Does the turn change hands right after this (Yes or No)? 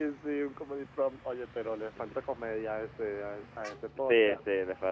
Yes